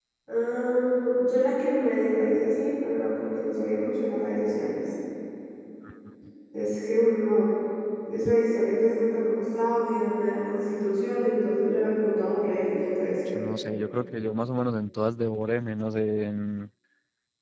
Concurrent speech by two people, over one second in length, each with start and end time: none

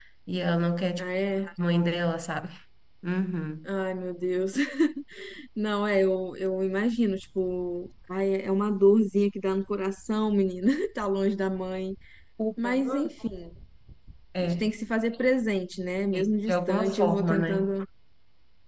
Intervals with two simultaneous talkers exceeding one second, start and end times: 16.1-17.7

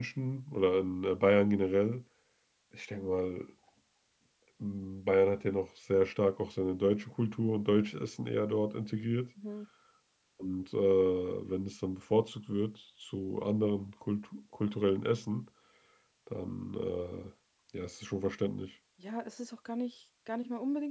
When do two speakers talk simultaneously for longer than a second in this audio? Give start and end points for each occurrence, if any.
none

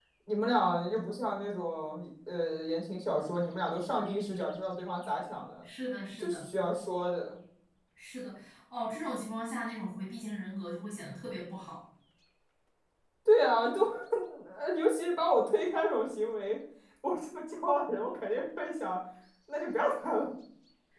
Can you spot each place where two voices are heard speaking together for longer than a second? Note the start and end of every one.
none

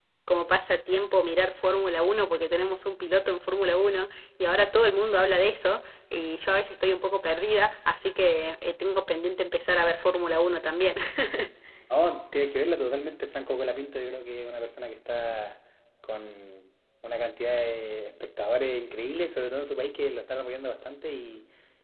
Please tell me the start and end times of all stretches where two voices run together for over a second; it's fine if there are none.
none

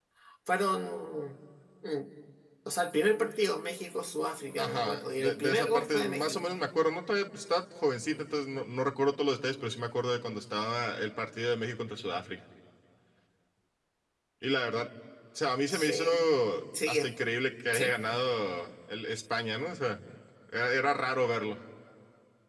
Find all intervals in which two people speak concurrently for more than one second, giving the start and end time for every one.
4.6-6.4

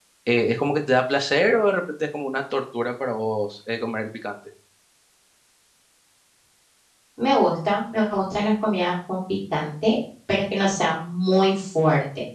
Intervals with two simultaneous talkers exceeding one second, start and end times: none

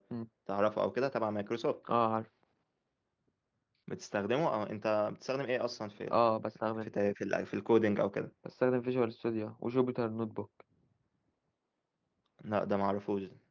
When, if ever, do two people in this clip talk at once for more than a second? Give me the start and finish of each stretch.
none

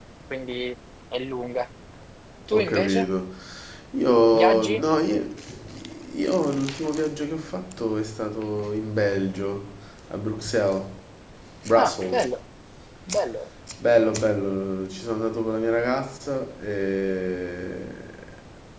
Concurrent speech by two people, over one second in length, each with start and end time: none

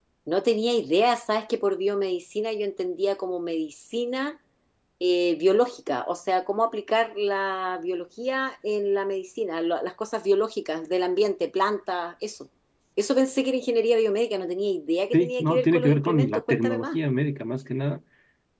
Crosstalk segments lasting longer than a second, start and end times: 15.1-17.0

